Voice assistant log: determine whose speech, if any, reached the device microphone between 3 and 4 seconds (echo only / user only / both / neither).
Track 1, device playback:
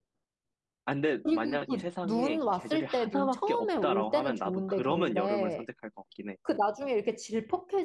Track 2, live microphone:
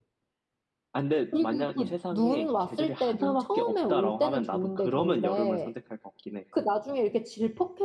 echo only